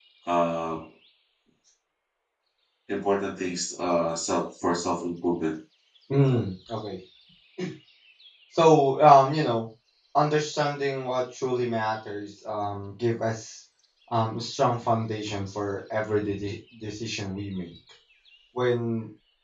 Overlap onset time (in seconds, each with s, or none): none